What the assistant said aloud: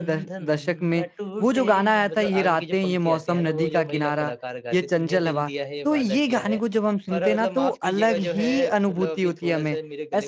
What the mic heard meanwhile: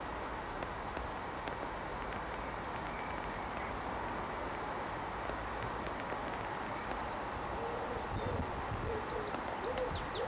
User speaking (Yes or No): No